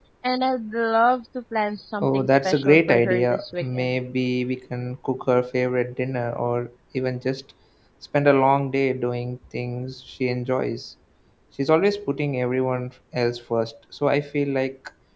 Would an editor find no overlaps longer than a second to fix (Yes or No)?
No